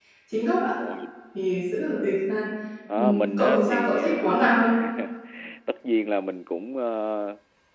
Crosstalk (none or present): present